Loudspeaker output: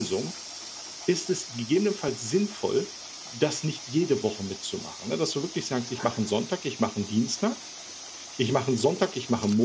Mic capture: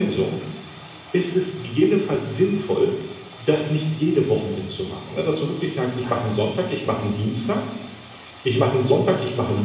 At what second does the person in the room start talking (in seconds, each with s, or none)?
none